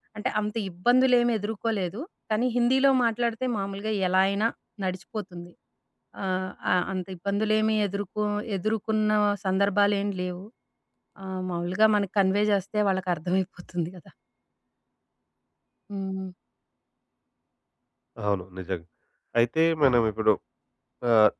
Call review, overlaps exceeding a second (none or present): none